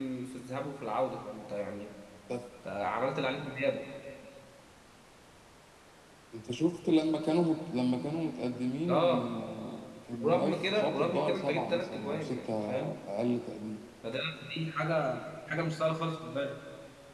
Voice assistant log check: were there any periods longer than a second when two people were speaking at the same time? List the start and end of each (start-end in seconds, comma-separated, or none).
10.2-12.7